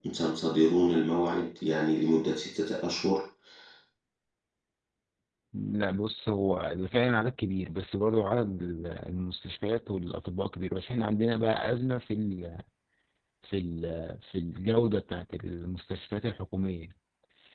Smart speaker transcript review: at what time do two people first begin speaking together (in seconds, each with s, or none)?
none